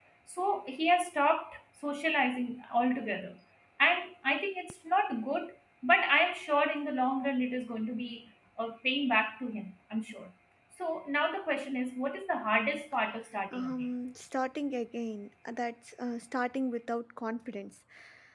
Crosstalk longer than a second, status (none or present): none